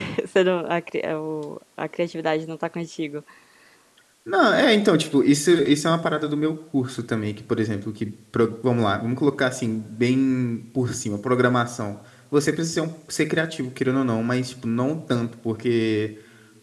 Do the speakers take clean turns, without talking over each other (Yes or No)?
Yes